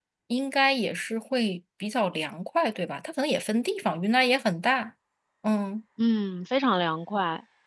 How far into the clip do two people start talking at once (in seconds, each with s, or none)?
none